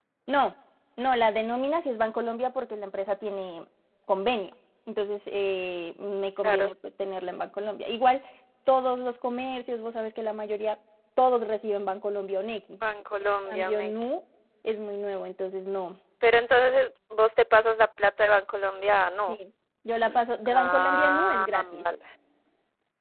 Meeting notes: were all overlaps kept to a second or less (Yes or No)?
No